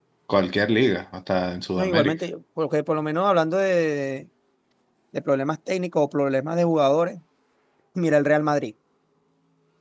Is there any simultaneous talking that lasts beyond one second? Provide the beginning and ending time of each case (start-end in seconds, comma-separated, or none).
none